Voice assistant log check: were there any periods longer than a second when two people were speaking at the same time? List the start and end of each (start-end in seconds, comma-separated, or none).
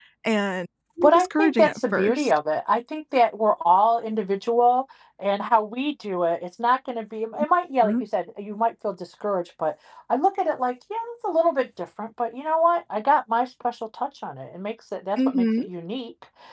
1.0-2.4